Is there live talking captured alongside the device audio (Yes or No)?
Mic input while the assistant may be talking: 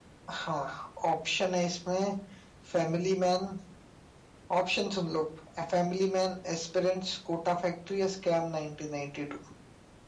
No